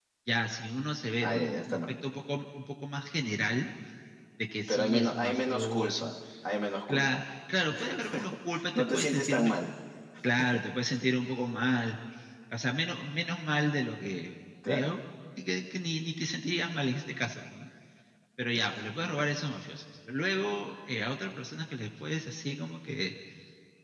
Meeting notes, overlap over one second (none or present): present